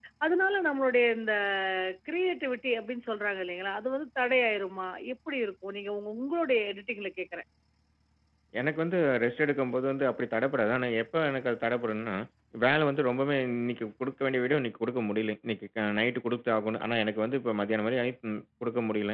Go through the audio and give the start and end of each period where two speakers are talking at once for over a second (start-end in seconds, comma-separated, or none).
none